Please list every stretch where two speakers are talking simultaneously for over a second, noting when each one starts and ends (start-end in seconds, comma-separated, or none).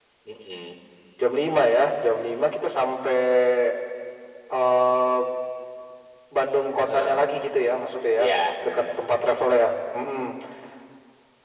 none